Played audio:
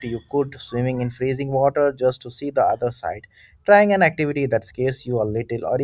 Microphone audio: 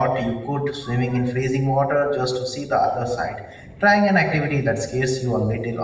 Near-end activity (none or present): none